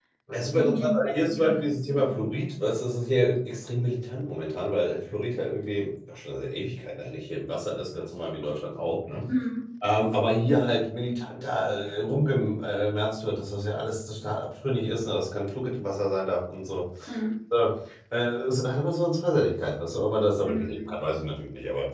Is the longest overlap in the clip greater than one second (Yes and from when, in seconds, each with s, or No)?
Yes, from 0.5 s